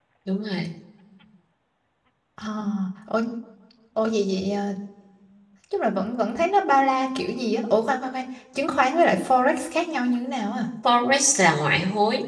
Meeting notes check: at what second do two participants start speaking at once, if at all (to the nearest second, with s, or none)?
none